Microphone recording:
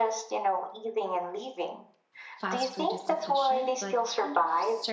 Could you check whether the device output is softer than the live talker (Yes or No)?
No